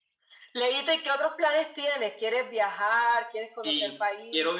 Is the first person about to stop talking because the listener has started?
Yes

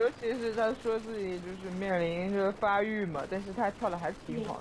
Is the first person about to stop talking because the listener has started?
Yes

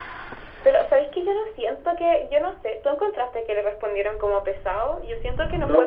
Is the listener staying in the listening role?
No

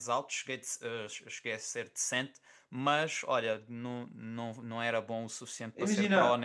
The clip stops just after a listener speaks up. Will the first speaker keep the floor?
No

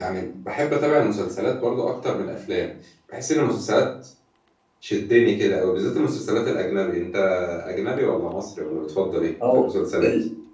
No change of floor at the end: No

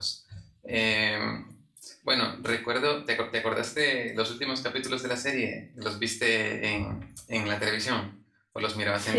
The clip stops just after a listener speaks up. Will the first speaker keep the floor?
No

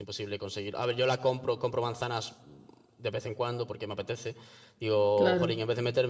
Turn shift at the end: No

